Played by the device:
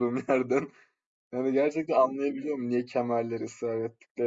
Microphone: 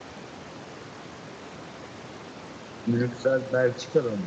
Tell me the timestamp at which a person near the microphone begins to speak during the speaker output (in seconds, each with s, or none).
2.9 s